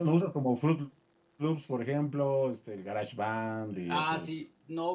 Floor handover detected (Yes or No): Yes